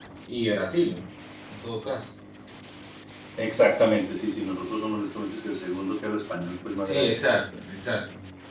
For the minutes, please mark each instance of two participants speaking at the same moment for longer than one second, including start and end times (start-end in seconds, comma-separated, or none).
none